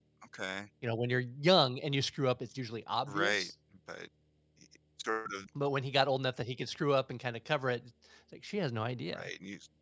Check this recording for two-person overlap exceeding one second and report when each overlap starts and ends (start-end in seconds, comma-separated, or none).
none